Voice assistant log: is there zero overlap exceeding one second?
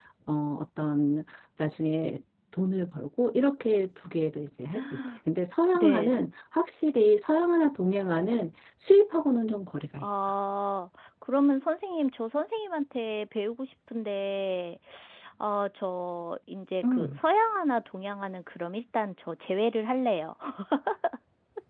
Yes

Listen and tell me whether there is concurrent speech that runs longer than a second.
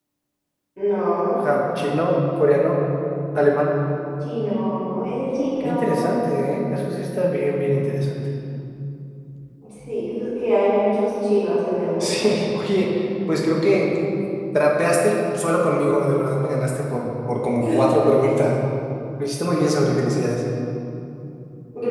No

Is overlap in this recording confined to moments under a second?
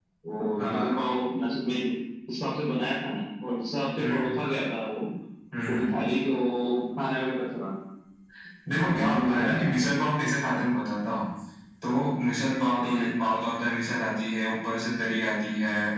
No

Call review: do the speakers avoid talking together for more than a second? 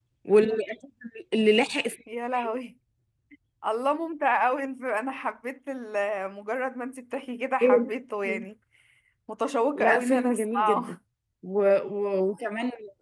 No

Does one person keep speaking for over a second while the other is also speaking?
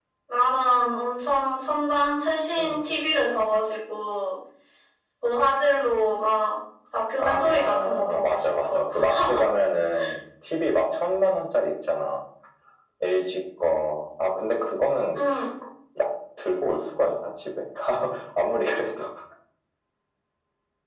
Yes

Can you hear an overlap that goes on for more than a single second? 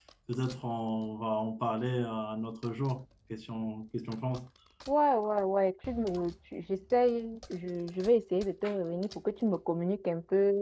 No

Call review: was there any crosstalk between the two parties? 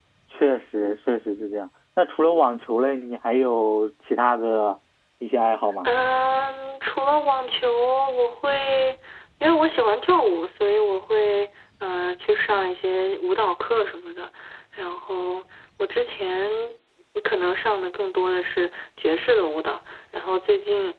No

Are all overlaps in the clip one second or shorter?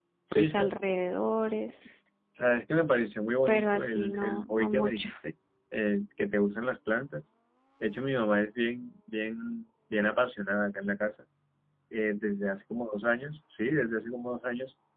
No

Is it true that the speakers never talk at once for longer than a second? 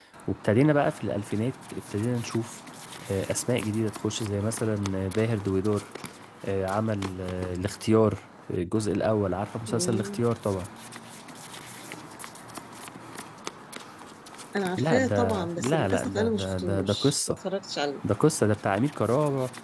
No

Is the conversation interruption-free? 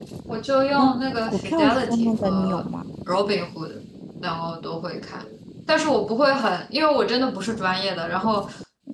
No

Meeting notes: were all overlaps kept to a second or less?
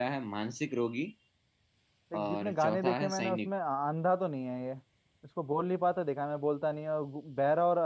No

